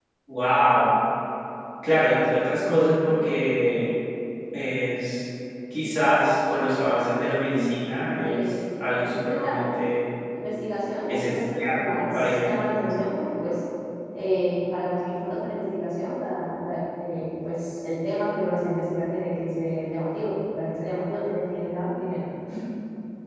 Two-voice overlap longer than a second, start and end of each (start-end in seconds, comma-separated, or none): 11.1-12.9